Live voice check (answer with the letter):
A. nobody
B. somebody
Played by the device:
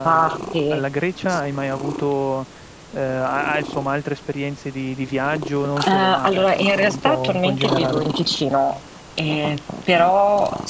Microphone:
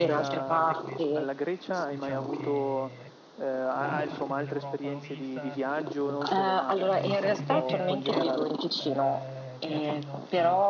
B